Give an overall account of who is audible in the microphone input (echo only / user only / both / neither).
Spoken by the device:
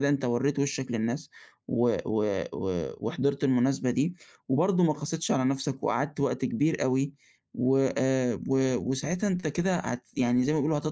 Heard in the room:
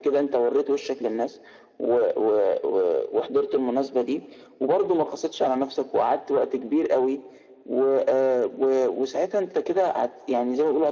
echo only